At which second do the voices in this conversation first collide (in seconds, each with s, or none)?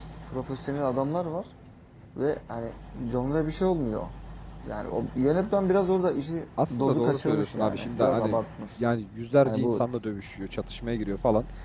6.8 s